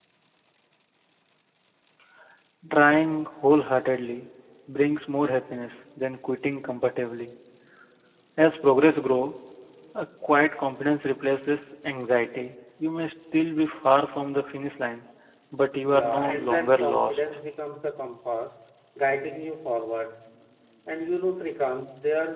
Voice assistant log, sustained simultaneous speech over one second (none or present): present